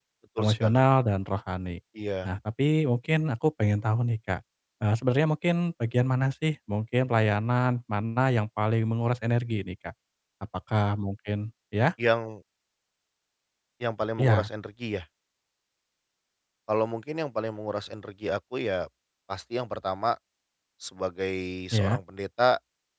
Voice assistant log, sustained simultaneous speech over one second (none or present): none